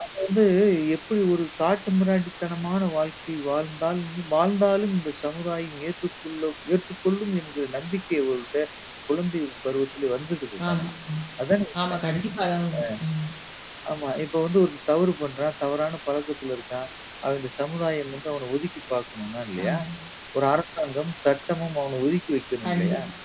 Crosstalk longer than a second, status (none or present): none